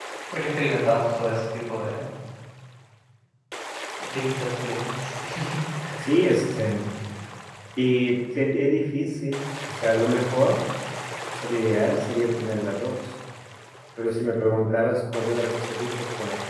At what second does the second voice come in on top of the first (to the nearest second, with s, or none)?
none